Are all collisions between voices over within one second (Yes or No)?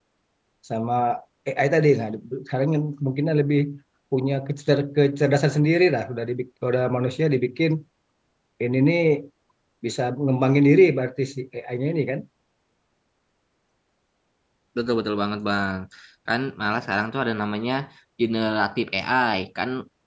Yes